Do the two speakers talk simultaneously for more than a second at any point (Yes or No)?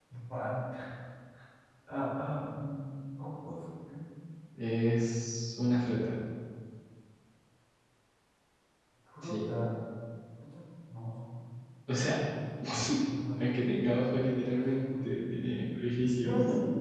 No